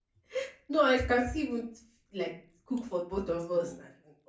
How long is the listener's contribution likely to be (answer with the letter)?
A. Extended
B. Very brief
B